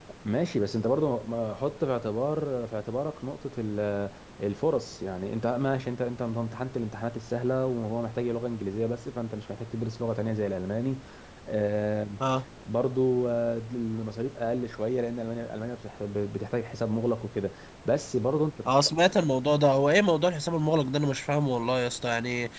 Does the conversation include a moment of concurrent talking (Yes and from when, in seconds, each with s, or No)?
No